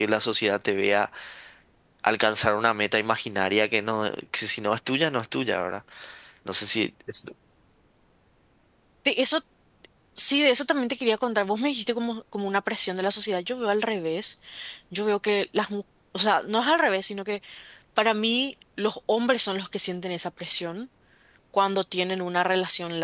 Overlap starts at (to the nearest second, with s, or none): none